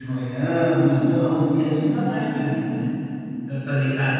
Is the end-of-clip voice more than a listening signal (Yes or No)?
No